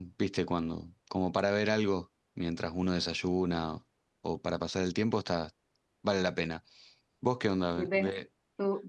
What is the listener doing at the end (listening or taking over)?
taking over